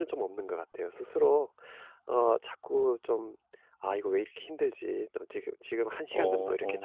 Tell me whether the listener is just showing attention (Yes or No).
Yes